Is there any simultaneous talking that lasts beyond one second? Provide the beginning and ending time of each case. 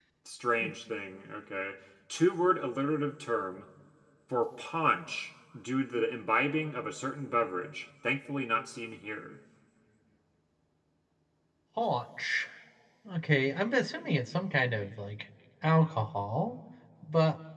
none

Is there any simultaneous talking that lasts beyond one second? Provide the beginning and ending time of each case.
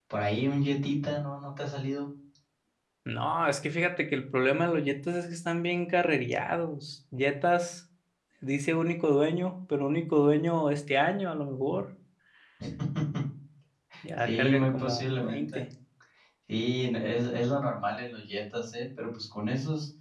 14.2-15.6

